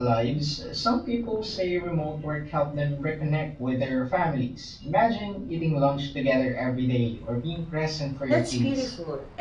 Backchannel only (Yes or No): No